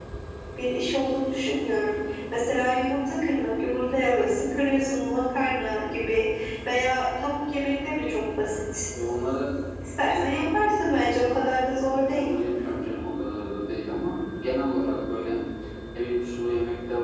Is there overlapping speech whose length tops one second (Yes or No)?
No